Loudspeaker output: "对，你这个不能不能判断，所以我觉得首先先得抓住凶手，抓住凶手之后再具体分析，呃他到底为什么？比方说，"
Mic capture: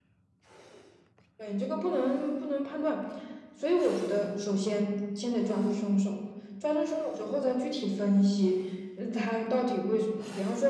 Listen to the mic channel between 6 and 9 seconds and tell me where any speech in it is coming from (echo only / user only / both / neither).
echo only